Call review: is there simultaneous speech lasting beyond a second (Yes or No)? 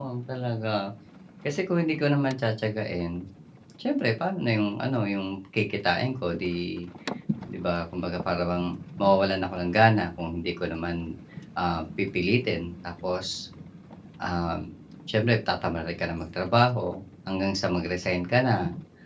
No